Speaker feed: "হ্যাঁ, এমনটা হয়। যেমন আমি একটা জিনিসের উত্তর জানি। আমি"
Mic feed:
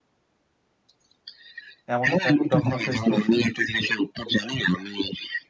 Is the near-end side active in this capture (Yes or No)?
Yes